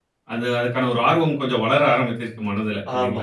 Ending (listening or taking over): taking over